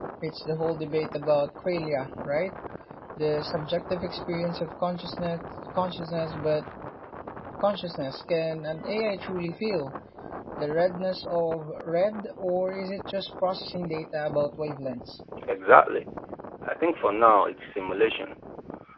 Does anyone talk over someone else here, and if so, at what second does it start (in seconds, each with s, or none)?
none